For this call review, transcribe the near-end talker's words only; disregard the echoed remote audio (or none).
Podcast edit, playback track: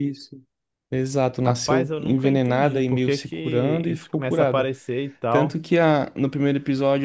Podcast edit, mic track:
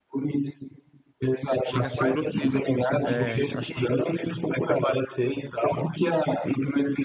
chega a ser grotesco. É, acho que.